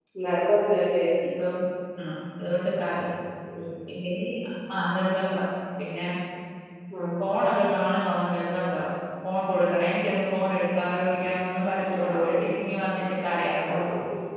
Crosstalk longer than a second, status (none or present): none